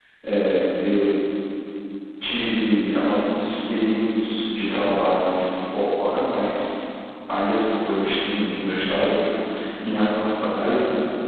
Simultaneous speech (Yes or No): No